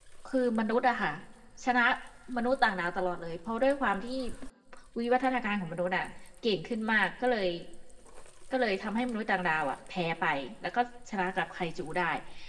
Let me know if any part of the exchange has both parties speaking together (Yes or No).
No